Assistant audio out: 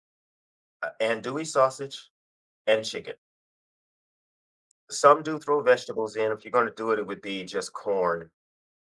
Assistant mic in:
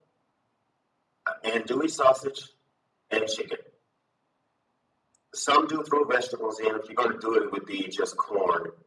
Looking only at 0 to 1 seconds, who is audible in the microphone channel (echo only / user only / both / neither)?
neither